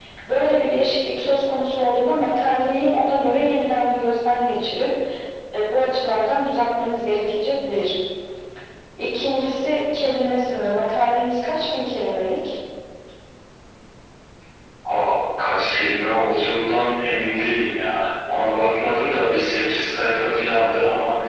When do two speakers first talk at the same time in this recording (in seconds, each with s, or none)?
none